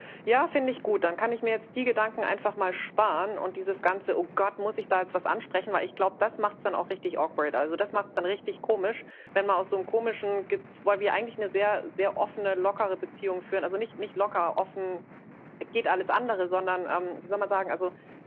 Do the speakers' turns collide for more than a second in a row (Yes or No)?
No